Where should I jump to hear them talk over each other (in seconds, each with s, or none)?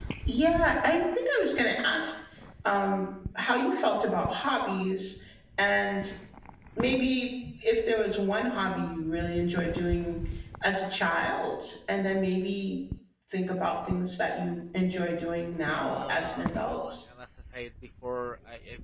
15.7 s